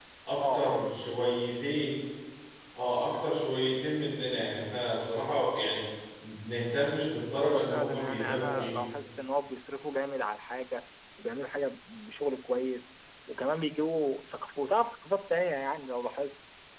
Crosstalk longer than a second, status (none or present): present